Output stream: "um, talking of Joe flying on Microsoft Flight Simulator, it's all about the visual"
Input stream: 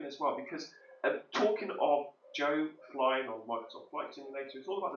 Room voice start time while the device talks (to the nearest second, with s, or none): none